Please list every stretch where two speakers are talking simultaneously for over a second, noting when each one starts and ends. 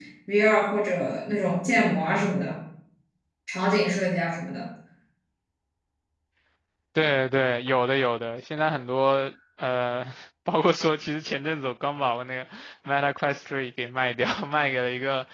none

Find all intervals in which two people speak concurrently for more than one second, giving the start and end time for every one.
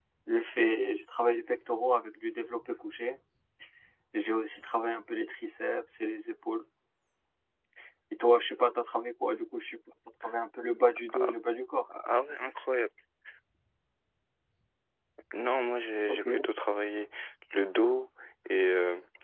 none

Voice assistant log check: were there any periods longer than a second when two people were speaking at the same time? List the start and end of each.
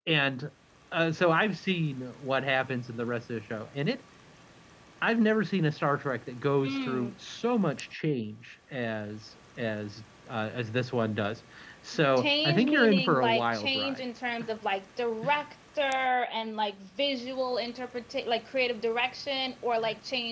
12.2-14.0

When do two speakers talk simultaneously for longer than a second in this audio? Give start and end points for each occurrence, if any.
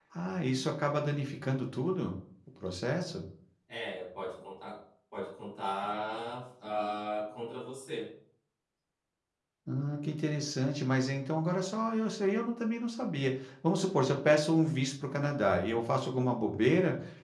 none

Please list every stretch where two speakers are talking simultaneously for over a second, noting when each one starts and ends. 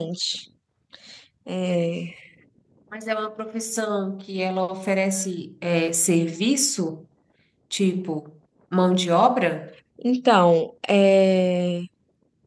none

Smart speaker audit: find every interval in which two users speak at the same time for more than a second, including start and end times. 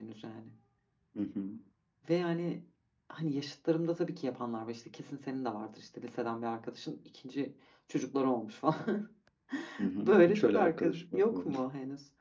10.0-11.5

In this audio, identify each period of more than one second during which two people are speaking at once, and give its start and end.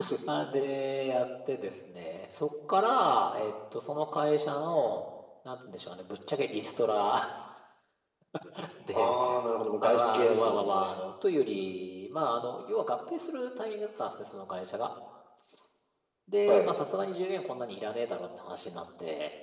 9.8-11.0

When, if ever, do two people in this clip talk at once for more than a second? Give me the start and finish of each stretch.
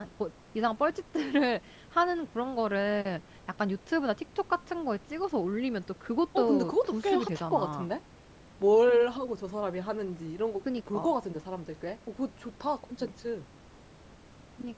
6.4-7.9

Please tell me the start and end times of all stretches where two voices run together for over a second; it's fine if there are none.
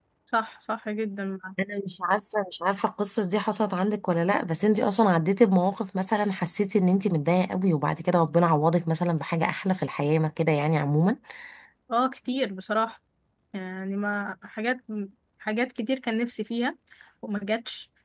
none

